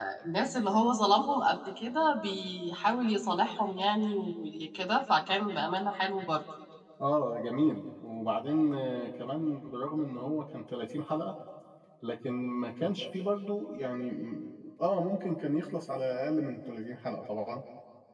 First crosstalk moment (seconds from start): none

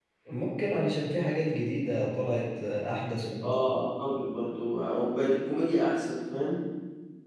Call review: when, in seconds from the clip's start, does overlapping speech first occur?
none

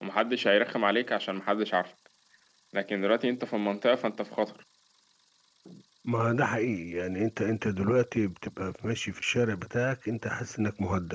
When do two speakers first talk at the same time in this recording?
none

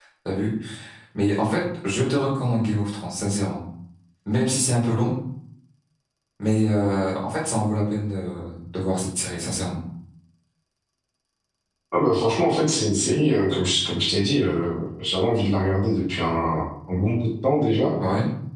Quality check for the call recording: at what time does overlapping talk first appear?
none

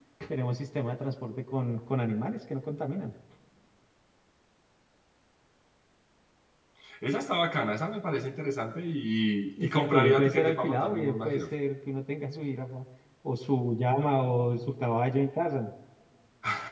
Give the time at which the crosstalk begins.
9.6 s

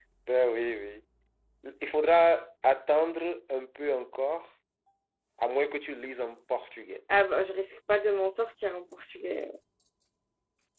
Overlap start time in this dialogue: none

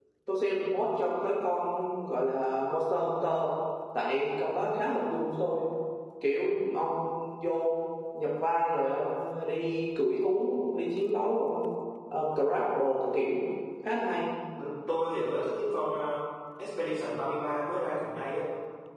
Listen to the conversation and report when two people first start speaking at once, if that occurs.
none

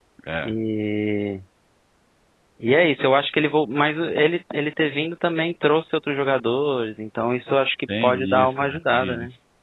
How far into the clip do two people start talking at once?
7.9 s

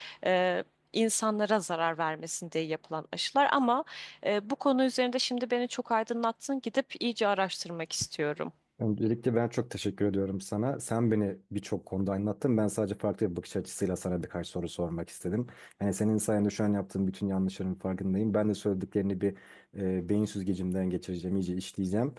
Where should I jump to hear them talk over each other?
none

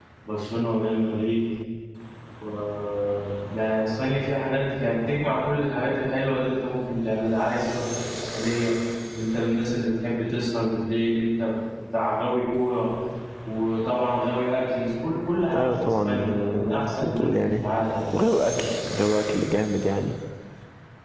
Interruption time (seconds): 15.5 s

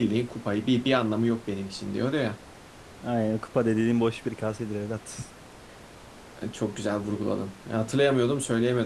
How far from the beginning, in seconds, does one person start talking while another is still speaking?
none

